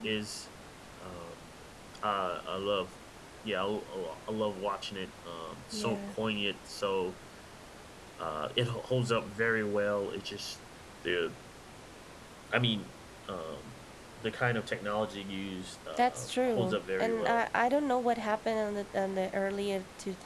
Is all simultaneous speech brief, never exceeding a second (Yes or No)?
No